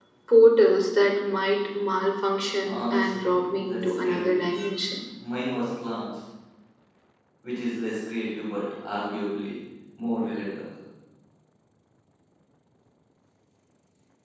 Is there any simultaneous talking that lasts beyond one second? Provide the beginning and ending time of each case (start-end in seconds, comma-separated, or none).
2.6-4.5